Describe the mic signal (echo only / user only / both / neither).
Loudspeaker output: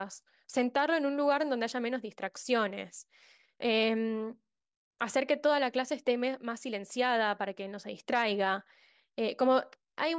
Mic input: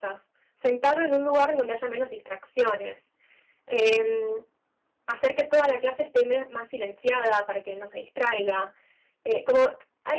echo only